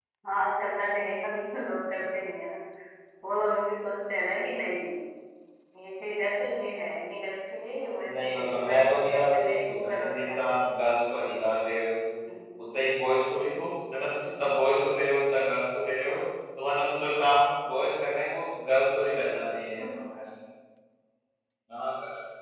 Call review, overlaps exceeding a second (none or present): present